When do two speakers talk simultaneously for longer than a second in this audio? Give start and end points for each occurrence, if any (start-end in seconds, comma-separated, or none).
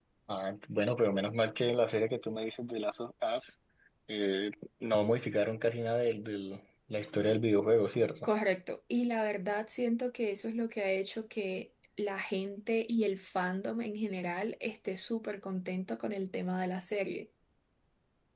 none